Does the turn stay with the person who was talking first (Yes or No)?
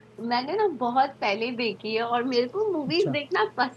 Yes